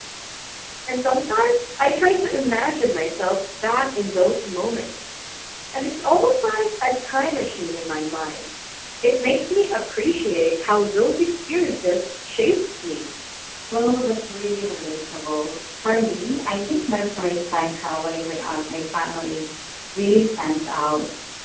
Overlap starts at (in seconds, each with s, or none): none